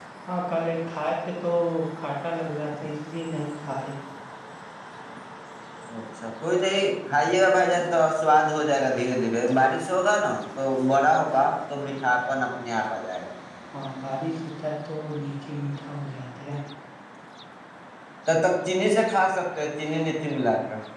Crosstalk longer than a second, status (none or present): none